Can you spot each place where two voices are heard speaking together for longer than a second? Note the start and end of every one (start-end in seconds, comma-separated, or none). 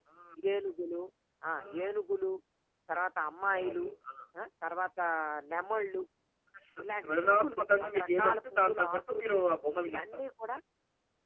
6.8-9.2